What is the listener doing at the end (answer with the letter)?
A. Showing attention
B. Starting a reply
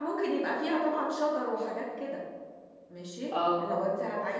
A